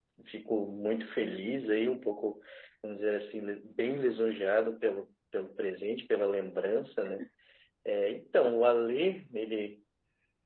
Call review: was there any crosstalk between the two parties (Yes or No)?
No